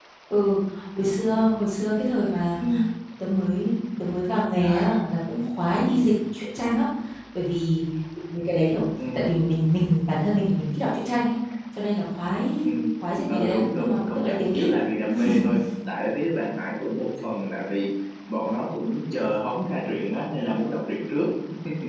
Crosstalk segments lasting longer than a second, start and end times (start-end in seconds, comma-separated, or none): 13.3-14.7